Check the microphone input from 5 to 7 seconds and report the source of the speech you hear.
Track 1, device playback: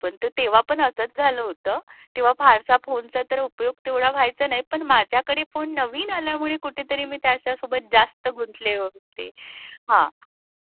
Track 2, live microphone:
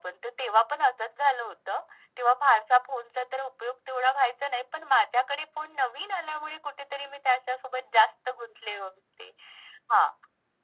echo only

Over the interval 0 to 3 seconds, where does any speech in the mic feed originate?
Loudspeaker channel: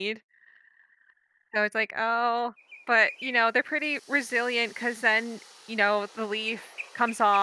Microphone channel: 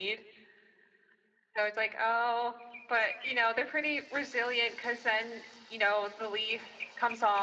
echo only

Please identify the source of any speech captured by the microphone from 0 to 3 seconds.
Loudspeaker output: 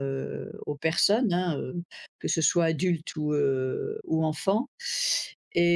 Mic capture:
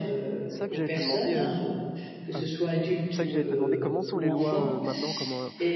both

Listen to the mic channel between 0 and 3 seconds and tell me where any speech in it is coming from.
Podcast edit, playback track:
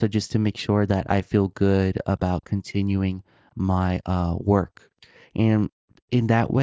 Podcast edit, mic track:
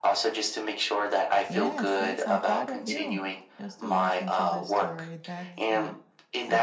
both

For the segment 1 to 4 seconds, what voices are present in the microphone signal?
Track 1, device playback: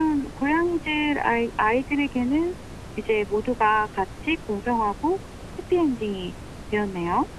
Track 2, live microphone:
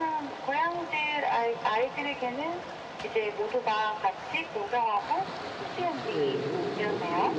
echo only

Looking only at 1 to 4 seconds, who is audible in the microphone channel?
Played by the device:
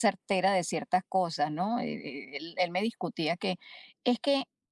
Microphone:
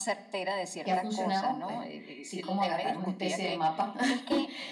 both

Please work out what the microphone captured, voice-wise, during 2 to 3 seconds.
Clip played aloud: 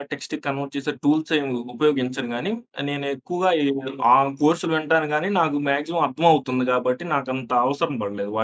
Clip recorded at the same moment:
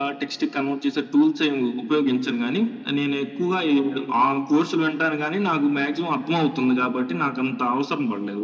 echo only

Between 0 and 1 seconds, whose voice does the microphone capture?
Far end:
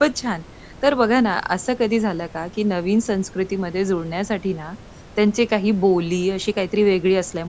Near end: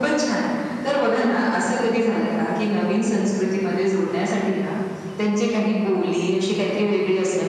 echo only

